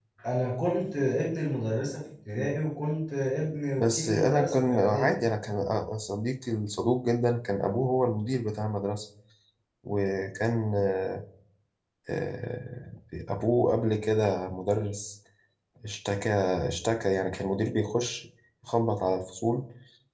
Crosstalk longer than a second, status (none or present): present